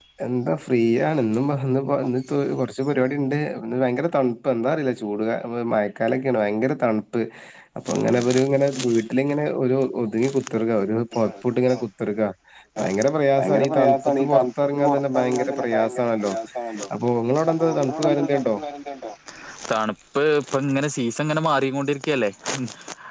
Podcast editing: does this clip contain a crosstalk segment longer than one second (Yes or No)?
Yes